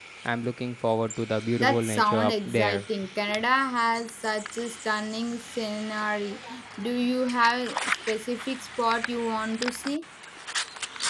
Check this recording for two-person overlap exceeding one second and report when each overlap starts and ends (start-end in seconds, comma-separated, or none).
1.6-2.8